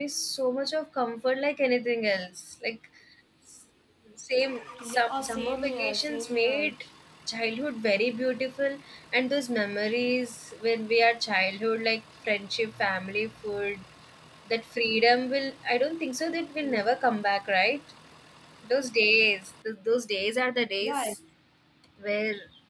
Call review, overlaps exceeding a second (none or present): present